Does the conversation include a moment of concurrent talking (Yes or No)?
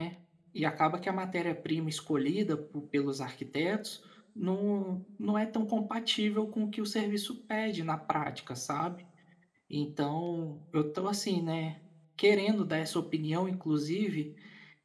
No